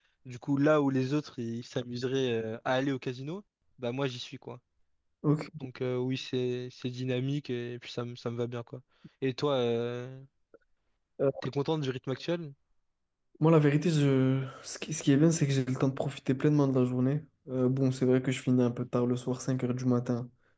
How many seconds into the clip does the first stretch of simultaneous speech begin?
none

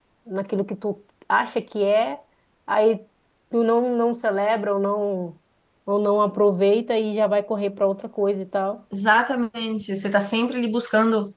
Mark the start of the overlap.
none

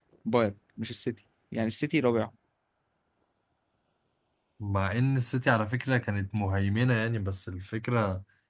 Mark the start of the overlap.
none

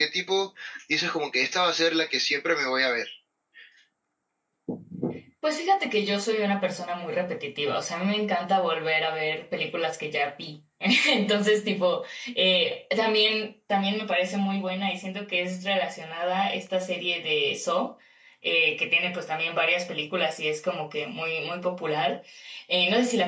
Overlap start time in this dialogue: none

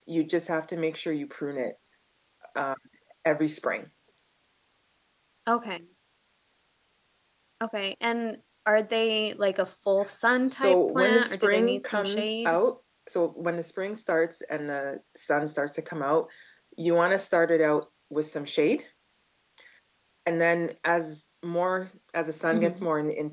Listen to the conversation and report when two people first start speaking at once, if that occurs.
10.5 s

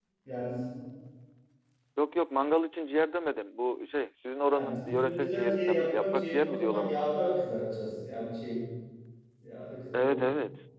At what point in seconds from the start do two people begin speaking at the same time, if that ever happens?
4.5 s

